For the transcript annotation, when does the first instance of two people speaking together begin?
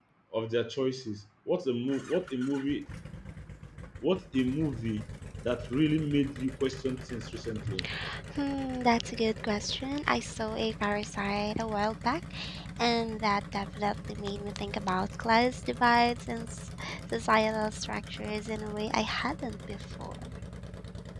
none

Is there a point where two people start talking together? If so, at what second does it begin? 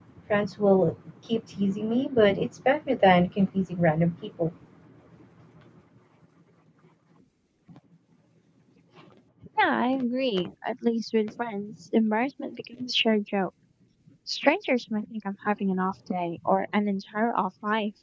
none

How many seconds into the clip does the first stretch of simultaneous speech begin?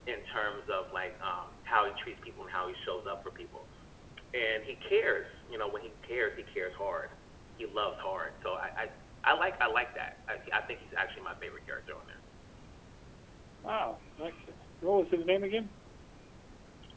none

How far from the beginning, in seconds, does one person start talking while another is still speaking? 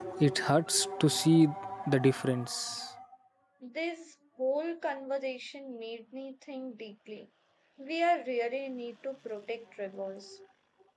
none

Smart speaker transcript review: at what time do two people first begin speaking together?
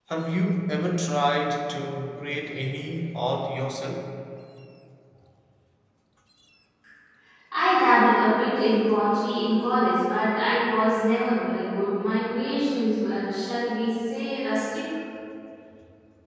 none

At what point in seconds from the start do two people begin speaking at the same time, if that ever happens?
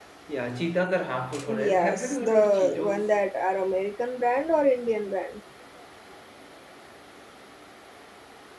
1.3 s

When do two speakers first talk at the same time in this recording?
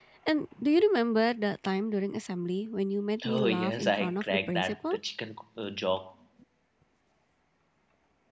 3.2 s

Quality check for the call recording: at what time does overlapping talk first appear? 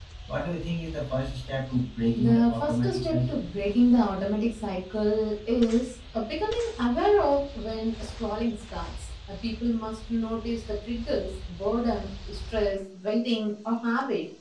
2.2 s

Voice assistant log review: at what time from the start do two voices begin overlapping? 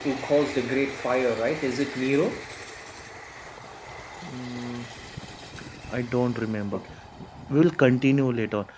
none

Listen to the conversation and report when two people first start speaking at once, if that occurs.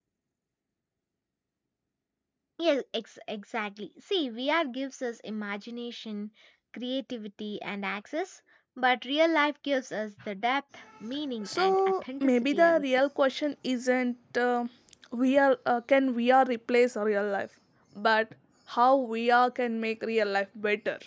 11.4 s

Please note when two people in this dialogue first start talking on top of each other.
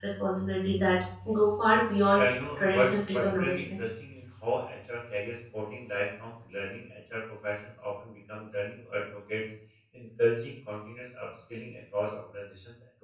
2.1 s

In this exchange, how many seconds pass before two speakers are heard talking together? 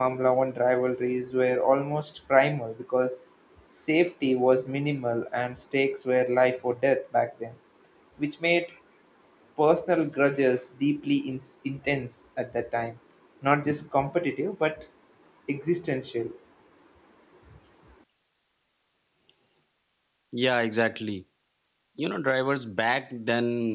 none

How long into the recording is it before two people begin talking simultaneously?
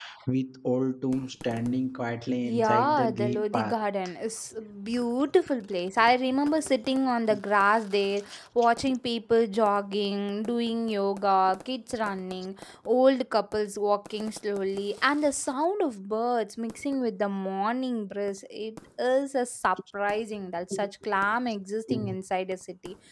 2.4 s

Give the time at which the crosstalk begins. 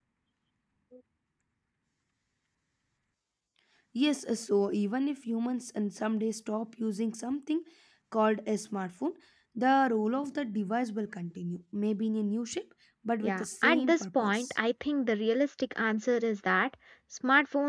13.2 s

